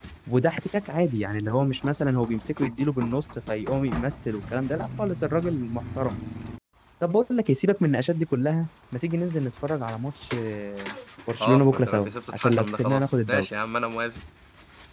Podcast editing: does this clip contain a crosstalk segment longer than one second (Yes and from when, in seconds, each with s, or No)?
Yes, from 11.4 s